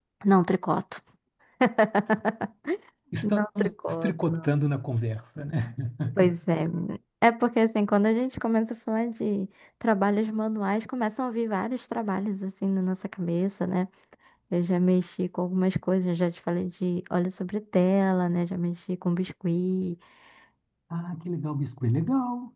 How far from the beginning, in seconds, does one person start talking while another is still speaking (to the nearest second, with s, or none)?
3 s